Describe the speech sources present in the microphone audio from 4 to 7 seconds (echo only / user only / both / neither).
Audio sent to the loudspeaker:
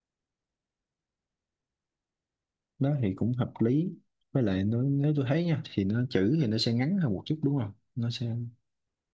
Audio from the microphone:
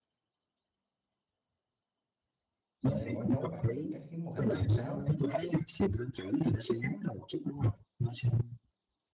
both